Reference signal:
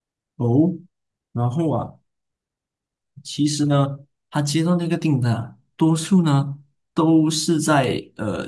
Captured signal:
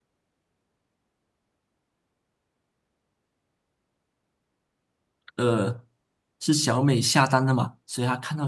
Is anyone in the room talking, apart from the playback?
Yes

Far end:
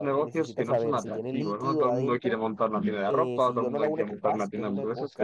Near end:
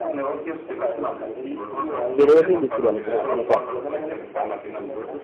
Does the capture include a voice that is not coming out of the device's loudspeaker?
Yes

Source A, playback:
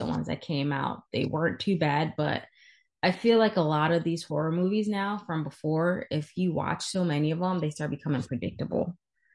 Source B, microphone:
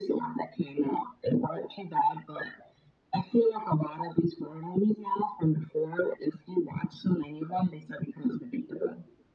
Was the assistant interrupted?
No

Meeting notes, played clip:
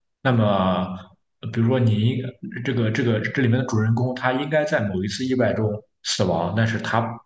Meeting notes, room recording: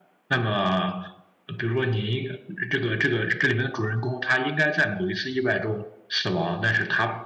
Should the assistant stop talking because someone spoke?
No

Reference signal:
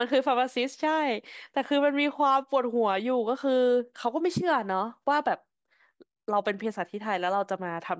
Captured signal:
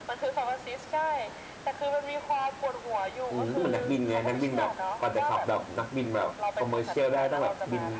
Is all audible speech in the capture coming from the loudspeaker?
No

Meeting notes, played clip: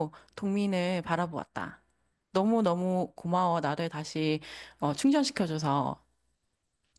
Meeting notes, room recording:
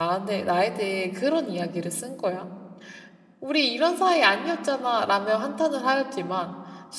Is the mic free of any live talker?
No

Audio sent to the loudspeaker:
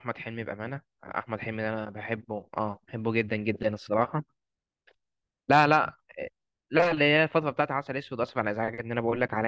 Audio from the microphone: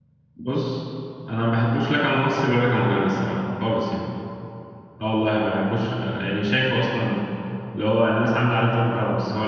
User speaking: Yes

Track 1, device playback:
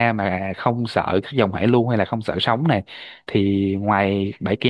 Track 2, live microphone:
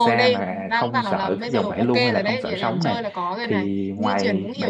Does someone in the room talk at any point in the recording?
Yes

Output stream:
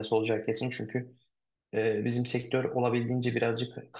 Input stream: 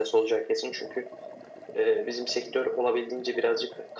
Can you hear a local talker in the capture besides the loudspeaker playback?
No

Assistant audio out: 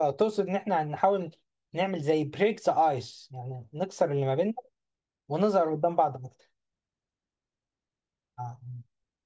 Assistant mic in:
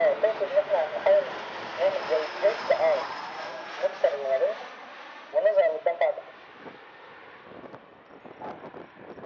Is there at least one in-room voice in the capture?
No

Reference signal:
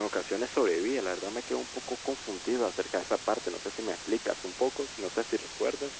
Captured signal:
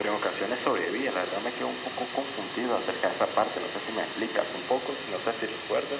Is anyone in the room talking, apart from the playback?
No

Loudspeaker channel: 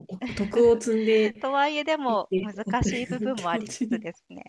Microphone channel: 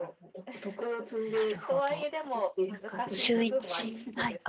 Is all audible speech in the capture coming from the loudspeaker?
No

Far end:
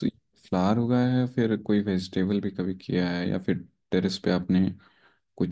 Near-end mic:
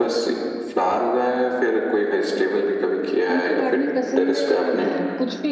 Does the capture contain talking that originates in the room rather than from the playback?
Yes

